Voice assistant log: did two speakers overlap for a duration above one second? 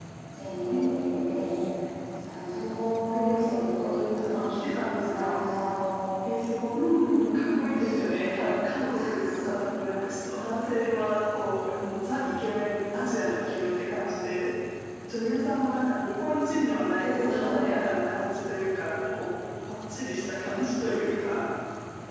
Yes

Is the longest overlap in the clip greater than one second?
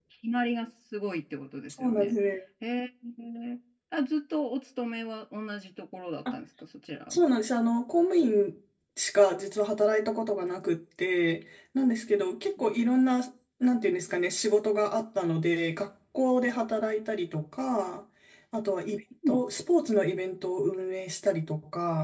No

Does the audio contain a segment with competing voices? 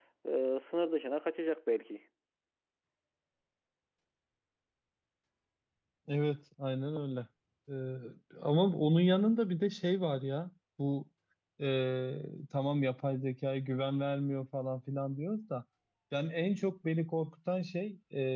No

